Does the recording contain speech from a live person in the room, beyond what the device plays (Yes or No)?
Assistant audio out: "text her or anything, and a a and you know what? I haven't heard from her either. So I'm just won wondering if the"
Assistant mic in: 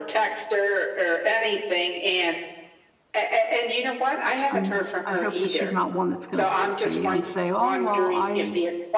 Yes